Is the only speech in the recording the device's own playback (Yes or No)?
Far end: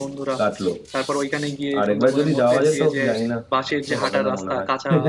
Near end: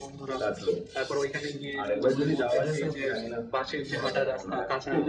Yes